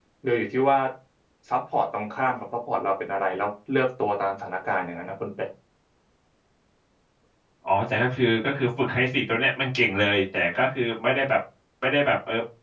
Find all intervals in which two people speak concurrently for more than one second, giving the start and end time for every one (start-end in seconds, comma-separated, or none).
none